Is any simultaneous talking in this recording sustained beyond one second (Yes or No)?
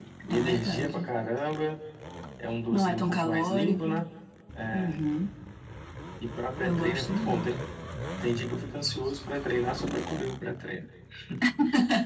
Yes